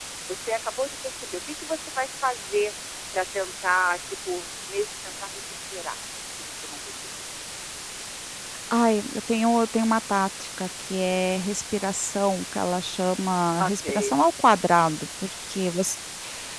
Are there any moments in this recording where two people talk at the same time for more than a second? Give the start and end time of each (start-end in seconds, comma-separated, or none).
none